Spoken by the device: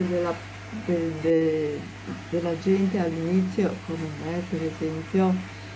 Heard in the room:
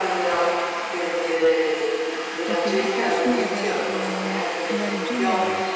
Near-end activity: present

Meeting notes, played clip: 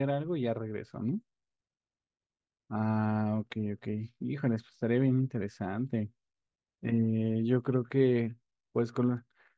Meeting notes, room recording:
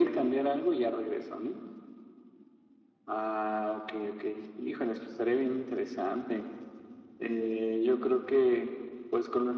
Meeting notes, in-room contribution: none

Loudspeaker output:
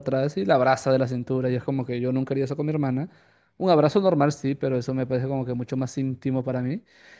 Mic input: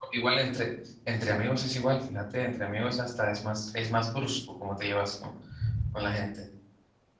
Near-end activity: present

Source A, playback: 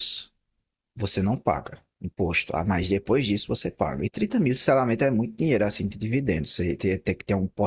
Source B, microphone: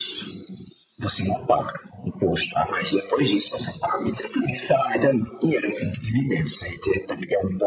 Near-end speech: none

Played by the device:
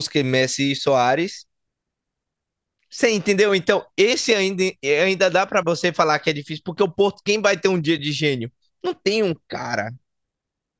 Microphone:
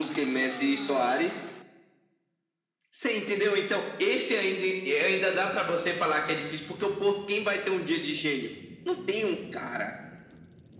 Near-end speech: none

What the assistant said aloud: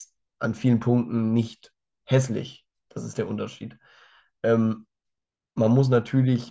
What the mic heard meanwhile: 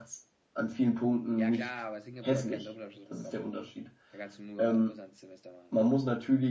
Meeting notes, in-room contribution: present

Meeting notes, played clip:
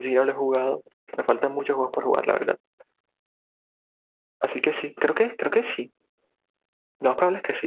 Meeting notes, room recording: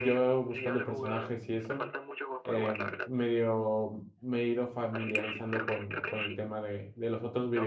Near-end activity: present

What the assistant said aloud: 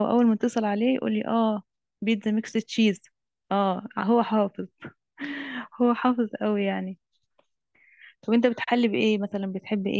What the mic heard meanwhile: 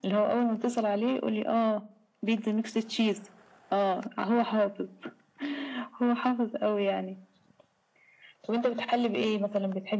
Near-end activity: none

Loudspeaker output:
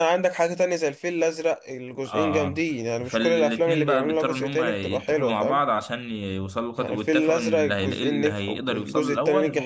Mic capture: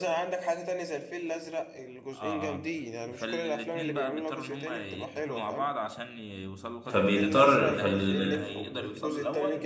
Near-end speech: present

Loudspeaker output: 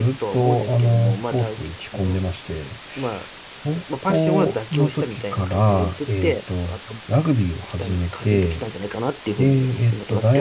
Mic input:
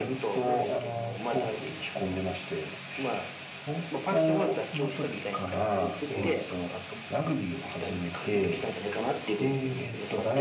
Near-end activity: present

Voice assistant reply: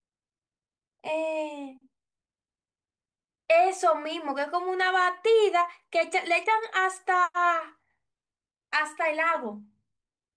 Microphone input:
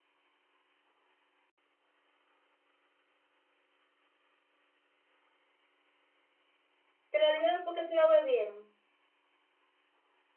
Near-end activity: present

